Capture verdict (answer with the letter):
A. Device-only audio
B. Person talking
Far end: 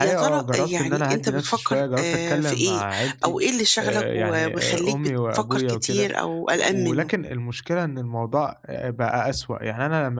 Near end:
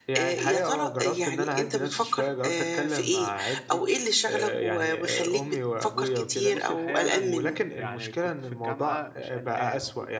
B